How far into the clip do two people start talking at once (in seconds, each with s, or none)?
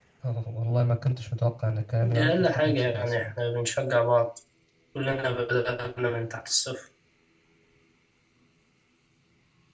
2.0 s